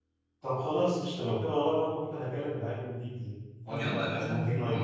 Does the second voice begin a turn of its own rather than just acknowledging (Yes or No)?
Yes